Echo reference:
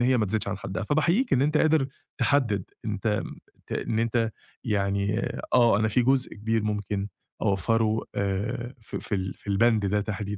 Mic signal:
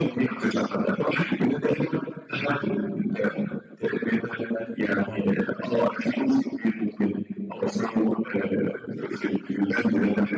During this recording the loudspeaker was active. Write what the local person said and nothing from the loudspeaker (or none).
حلو. آه.